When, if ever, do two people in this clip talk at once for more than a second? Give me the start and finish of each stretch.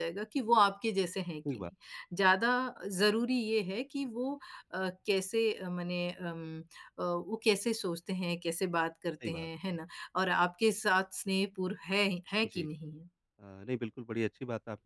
none

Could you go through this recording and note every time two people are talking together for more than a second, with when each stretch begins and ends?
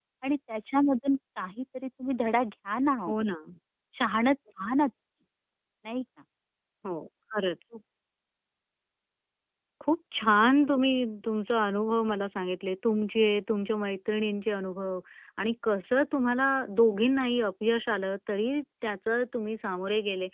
none

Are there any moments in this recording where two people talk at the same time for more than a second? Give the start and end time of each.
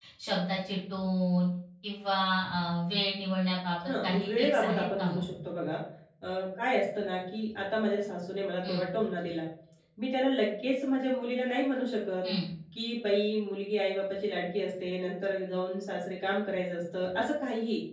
3.9-5.2

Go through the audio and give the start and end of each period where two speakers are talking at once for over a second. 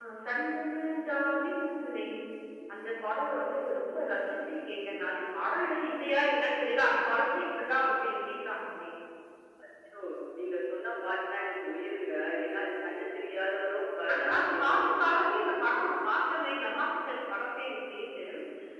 14.1-15.5

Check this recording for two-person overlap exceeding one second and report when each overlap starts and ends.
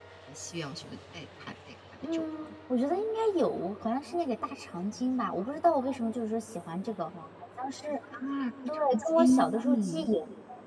8.7-10.1

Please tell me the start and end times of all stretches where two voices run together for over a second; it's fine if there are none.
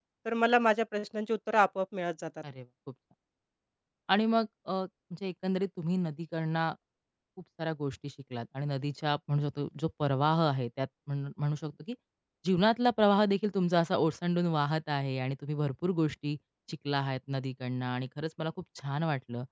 none

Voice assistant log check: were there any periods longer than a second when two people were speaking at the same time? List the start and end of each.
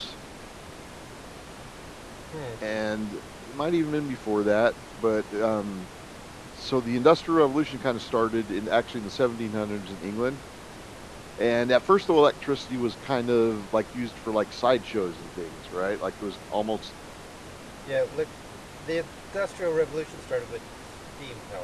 none

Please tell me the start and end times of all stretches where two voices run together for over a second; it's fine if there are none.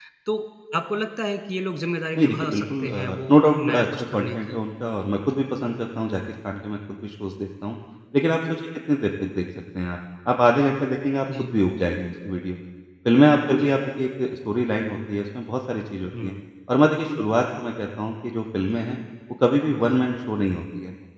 2.2-4.6

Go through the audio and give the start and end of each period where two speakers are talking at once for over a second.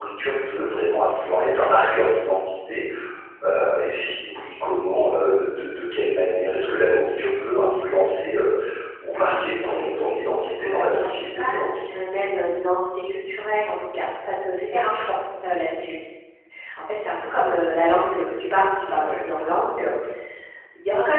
9.1-11.7

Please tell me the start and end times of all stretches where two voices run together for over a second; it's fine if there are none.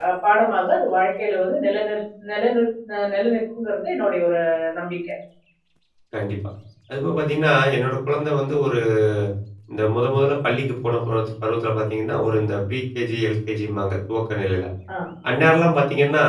none

